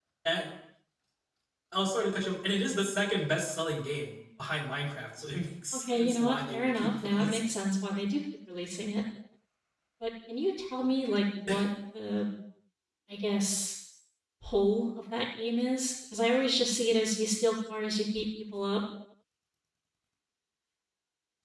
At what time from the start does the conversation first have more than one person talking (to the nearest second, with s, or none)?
6 s